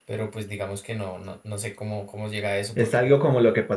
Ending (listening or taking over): taking over